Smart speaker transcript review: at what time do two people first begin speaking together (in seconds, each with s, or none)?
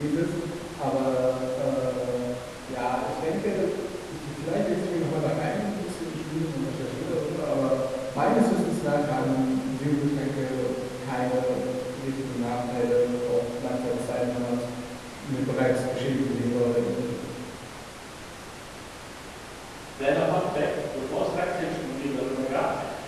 none